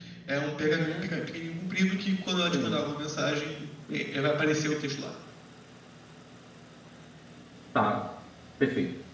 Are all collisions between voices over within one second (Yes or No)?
Yes